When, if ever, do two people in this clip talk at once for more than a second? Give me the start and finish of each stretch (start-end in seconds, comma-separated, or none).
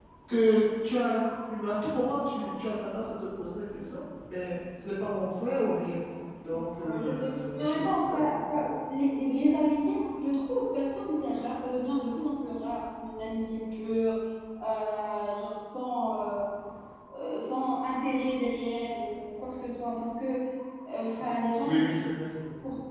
6.9-8.5